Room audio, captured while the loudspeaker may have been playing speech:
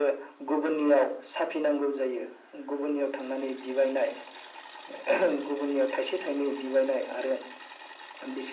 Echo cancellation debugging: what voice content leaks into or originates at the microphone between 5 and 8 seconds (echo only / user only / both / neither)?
echo only